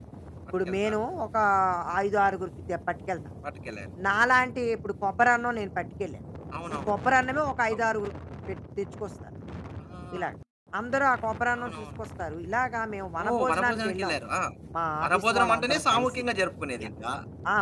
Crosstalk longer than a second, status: present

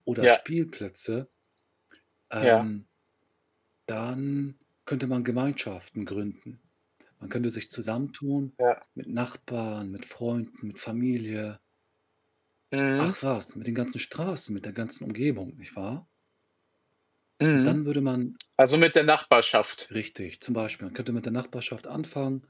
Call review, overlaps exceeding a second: none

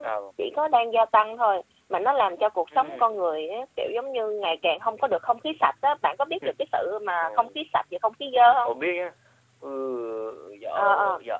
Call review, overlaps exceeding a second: none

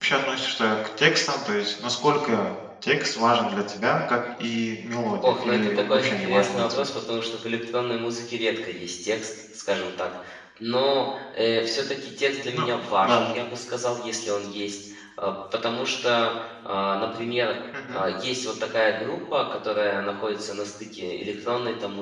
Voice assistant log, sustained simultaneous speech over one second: present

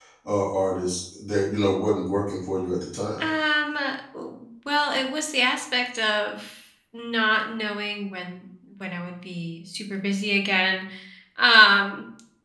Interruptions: none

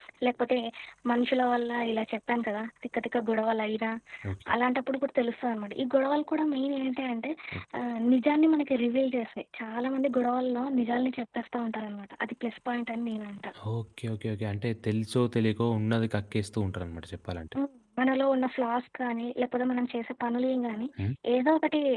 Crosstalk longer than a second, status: none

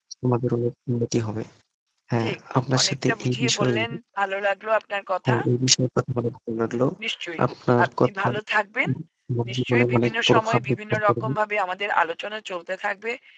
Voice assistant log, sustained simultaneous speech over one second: present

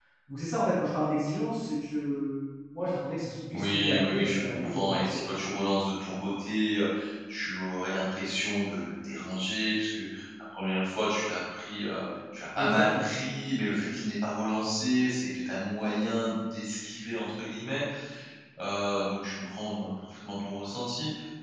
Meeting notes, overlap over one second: present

